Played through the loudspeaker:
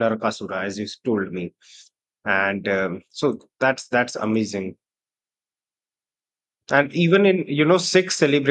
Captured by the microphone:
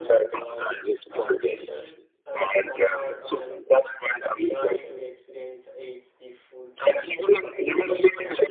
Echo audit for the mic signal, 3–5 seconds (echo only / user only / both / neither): both